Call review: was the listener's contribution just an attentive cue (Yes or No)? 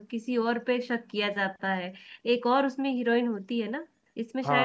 No